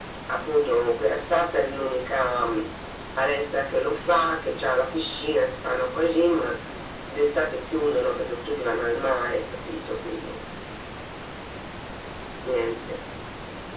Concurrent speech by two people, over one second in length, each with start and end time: none

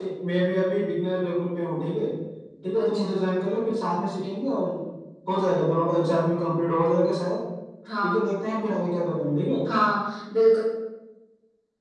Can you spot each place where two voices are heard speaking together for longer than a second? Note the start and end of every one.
none

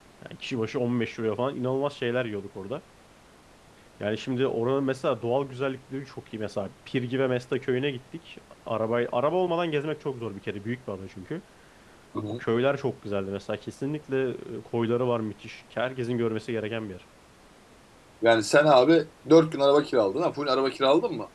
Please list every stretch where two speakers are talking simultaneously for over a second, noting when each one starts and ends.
none

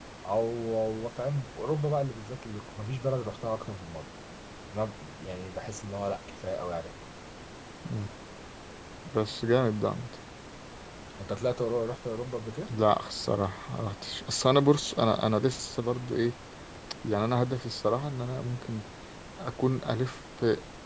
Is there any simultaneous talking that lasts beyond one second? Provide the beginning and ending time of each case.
none

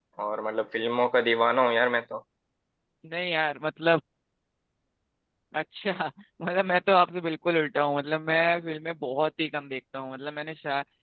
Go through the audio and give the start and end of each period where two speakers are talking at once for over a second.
none

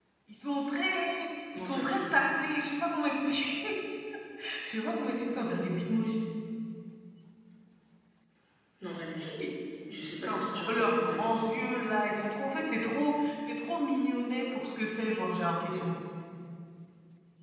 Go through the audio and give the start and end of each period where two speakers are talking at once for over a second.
9.9-11.4

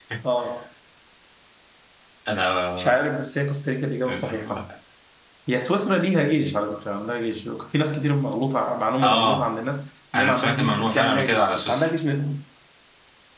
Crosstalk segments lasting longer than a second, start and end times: 10.1-11.9

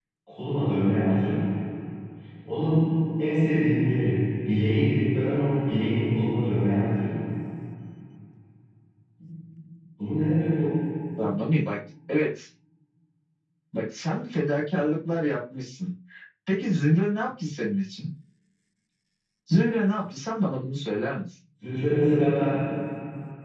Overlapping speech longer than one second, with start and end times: none

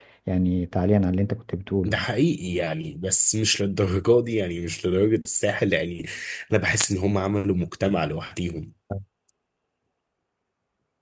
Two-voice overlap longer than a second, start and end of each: none

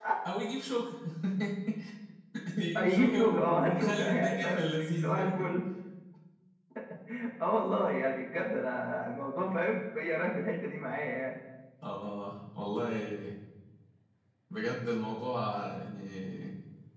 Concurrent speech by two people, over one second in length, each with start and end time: 2.8-4.6

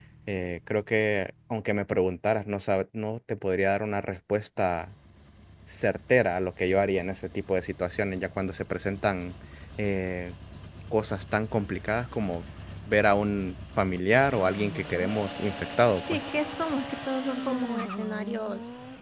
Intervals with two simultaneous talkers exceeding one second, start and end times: none

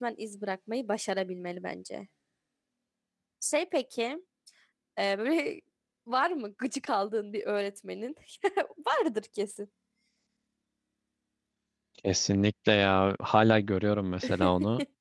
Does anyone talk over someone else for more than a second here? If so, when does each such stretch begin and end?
none

